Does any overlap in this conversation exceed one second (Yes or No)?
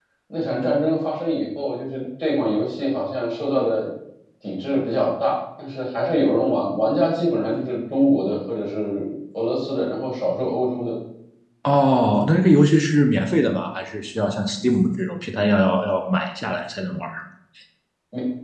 No